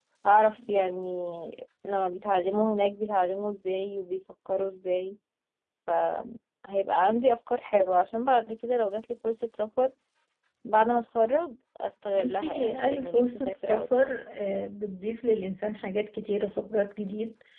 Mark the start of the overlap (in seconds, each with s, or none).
12.1 s